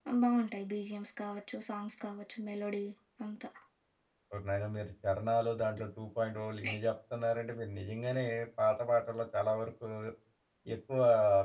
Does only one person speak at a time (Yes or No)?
Yes